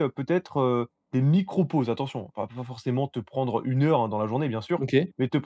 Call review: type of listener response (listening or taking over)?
listening